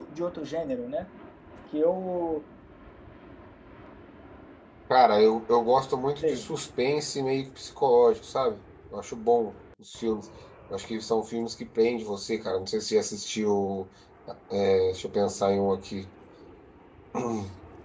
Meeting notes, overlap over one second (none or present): none